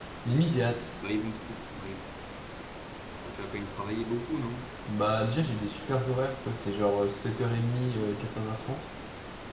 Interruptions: none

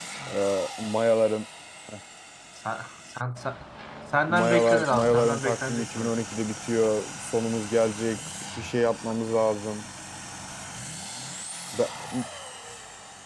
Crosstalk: present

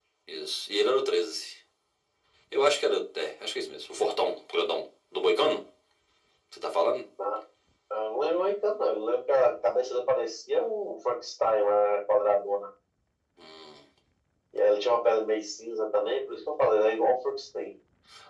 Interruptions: none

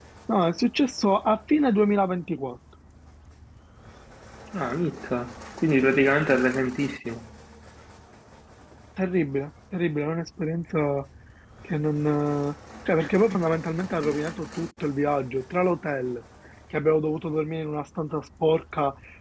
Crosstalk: none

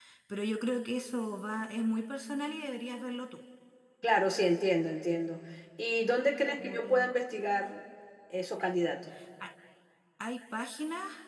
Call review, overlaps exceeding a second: none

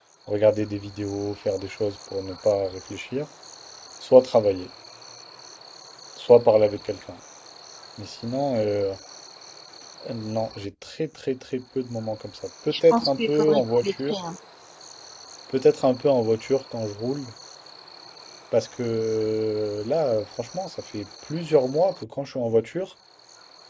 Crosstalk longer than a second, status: present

